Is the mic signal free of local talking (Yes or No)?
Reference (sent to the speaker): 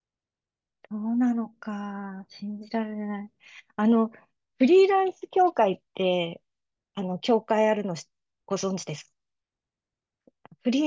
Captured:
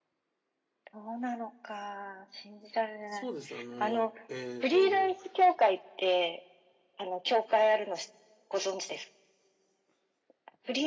No